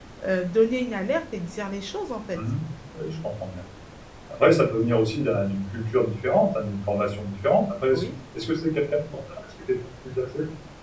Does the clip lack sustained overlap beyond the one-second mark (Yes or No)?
Yes